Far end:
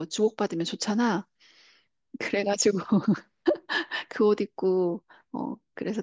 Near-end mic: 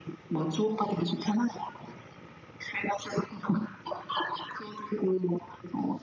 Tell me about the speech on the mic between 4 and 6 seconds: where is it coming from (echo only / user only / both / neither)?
echo only